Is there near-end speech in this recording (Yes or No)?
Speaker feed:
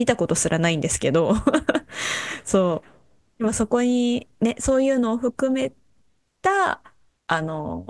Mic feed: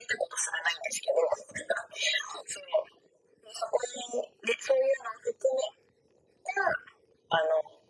No